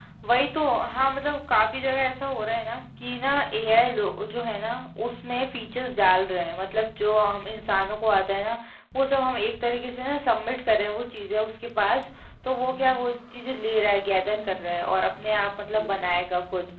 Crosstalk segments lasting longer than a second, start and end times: none

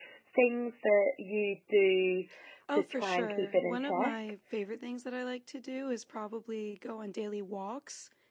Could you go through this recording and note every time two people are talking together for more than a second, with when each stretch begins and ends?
2.7-4.2

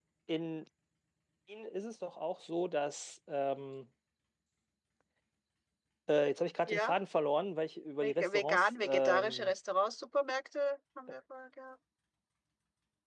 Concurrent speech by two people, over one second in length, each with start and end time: 8.0-9.5

